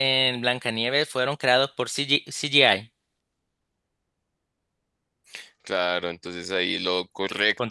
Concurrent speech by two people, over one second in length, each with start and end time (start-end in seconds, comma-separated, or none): none